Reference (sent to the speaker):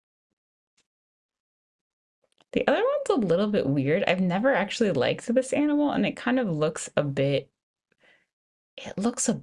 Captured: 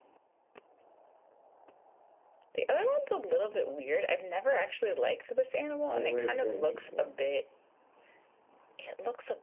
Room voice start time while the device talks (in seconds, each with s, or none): 5.9 s